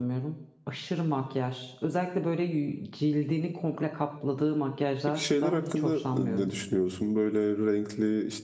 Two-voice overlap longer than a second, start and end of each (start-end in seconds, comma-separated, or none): 5.1-6.5